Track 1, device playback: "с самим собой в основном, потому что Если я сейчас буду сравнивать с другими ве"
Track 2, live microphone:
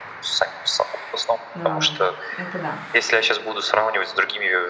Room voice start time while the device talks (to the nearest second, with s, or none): 2 s